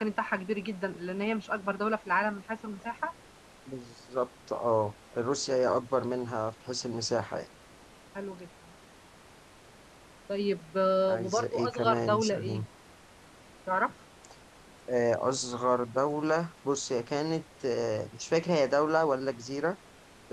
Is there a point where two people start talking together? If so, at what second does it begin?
11 s

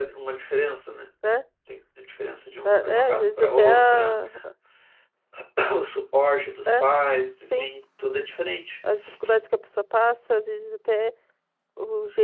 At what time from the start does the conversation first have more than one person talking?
3 s

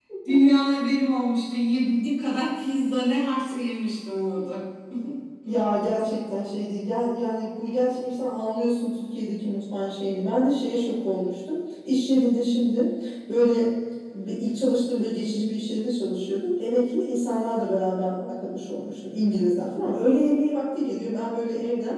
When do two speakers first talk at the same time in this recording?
none

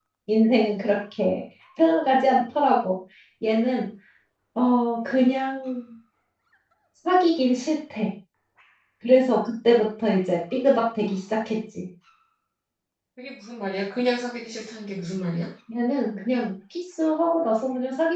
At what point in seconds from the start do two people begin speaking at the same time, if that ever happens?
none

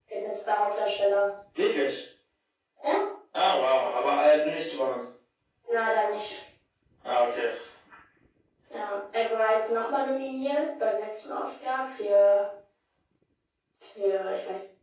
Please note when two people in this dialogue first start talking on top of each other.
none

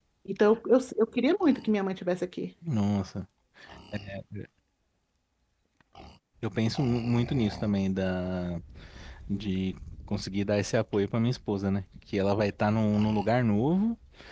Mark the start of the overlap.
none

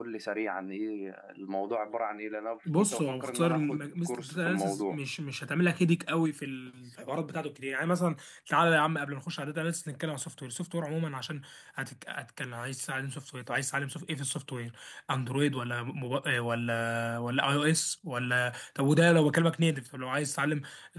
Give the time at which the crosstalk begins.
3 s

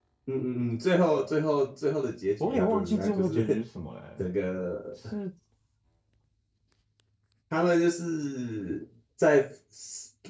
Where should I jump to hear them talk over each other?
2 s

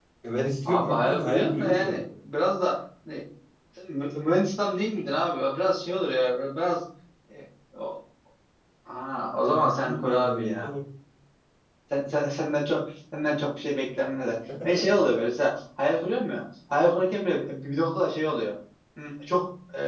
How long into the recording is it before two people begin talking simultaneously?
1 s

